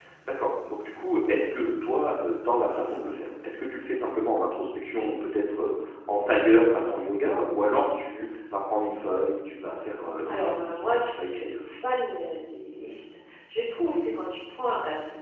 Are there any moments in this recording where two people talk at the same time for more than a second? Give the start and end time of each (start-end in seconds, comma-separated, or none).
10.2-11.5